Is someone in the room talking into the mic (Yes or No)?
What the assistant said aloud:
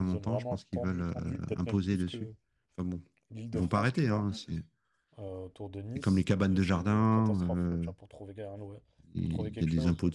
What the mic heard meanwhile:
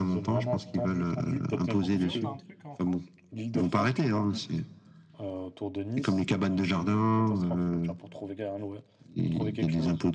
Yes